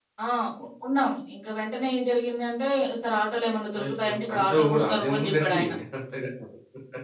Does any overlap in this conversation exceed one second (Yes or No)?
Yes